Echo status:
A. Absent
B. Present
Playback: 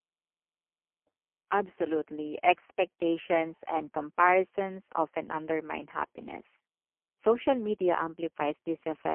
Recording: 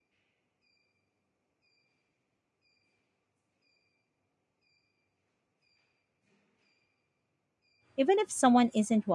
A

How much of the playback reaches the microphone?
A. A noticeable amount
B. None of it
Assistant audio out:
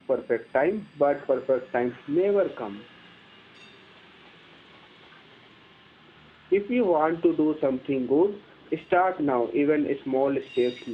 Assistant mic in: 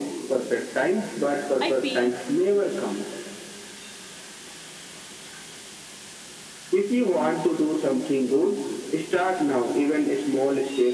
A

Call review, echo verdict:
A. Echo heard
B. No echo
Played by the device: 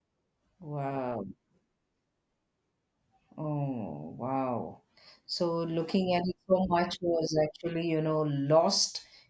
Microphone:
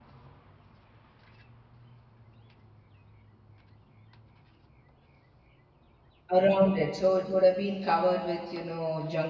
B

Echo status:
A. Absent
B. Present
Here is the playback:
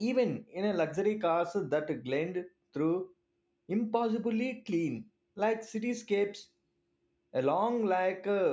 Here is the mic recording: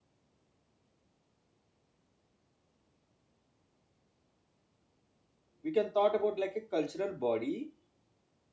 A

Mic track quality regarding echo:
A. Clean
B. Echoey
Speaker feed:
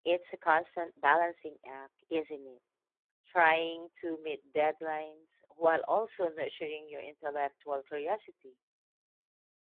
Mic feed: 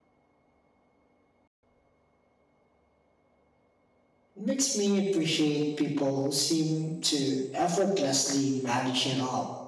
A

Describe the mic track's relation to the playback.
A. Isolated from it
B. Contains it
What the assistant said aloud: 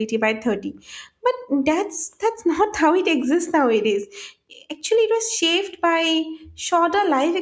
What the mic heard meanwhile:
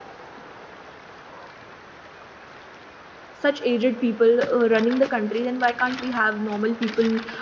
A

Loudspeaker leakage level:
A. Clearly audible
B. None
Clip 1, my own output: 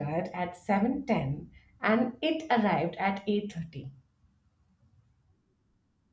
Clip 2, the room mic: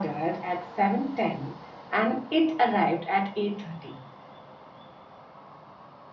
A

